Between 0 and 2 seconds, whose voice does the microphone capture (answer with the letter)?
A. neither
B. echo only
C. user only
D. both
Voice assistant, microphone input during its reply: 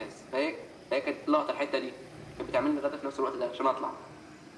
B